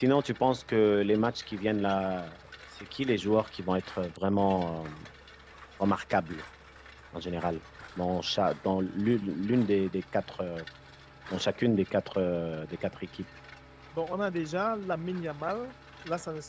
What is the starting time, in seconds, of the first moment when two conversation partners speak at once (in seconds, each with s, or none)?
none